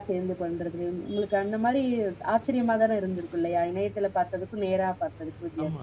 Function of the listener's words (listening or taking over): taking over